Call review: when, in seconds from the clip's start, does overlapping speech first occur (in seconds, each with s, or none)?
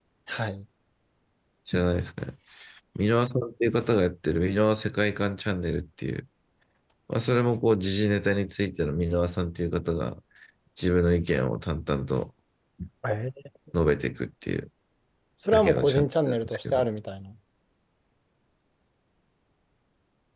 15.5 s